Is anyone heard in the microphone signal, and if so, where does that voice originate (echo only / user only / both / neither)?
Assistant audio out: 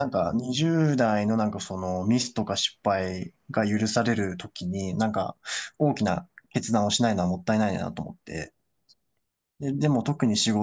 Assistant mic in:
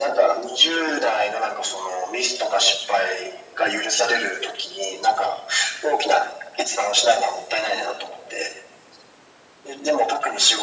echo only